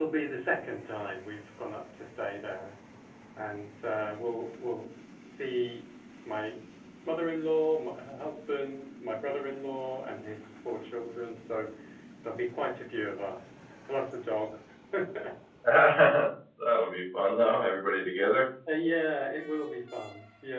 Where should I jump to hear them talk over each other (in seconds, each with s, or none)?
none